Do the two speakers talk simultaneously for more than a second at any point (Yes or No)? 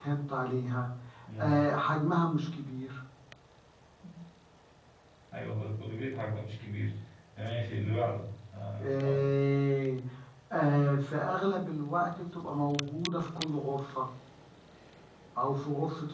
No